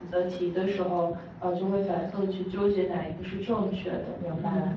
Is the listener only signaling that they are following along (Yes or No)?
No